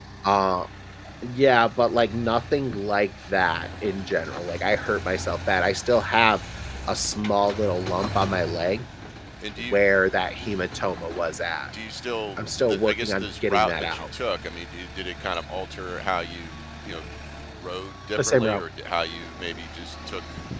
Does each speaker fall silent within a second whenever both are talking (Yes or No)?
No